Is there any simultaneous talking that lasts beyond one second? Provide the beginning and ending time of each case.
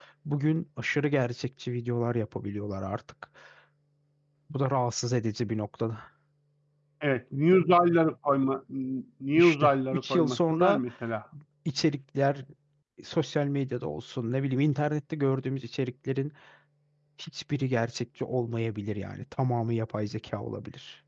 9.3-10.8

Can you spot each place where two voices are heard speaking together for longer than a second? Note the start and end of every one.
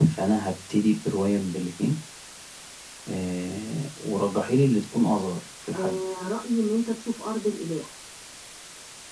none

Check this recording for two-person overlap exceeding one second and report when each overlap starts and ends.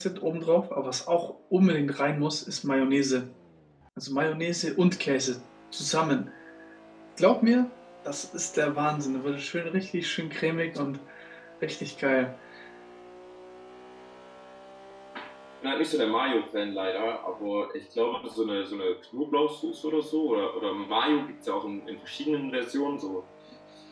none

